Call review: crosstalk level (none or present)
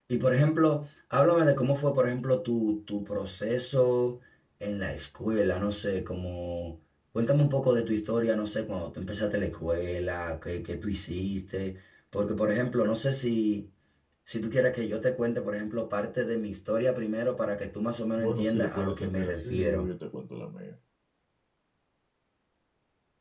present